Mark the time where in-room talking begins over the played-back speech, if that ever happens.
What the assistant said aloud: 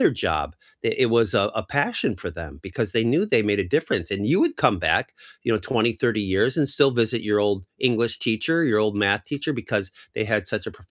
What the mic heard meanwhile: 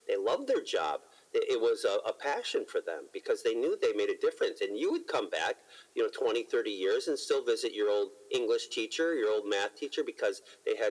none

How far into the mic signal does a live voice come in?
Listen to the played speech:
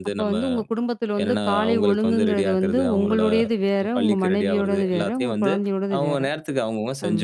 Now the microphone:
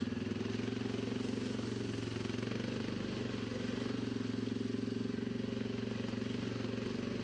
none

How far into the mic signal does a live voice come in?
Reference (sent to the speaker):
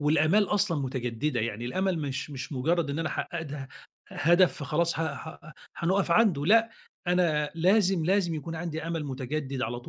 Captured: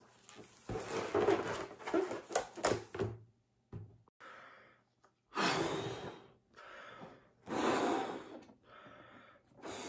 none

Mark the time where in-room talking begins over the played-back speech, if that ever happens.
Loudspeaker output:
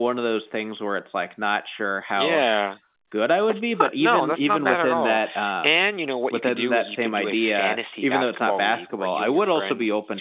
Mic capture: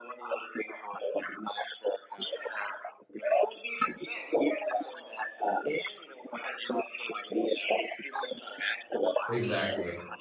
9.3 s

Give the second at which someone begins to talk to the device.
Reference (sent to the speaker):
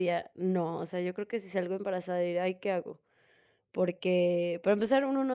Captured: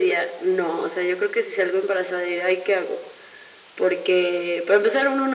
none

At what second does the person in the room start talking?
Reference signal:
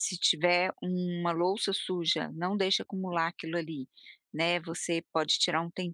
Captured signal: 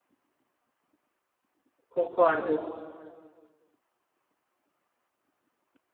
1.9 s

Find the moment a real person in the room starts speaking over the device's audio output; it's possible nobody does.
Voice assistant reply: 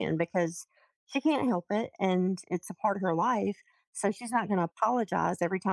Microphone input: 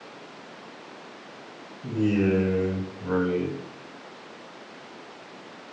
1.8 s

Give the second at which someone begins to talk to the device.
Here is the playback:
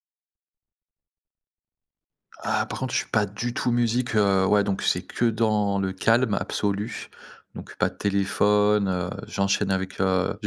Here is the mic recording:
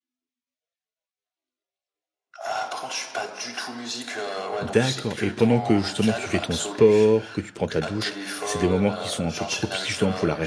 4.6 s

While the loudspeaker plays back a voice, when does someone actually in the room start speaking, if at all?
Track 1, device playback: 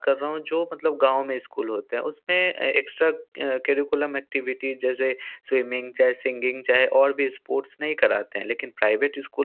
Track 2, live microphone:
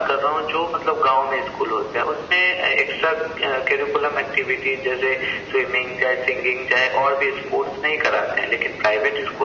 none

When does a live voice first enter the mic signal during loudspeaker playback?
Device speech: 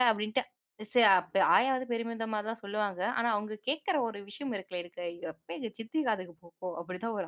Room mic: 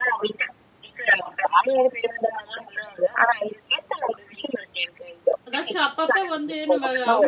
5.5 s

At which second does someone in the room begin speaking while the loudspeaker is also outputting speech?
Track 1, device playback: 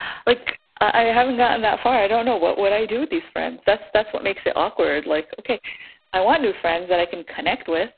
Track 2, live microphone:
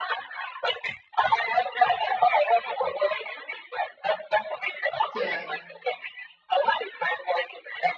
5.1 s

